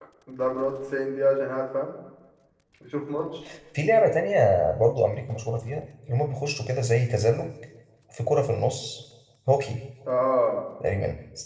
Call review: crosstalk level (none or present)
none